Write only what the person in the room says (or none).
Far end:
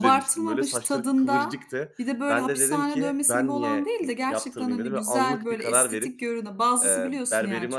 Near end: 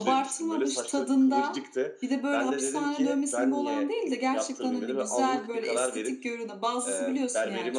none